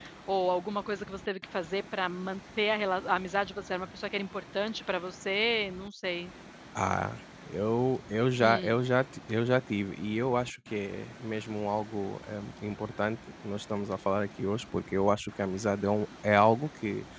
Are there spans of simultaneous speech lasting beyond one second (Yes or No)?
No